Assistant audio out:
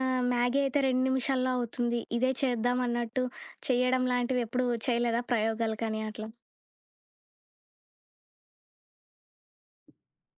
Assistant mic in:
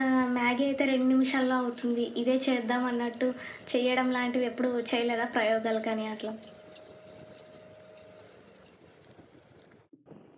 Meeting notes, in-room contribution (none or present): none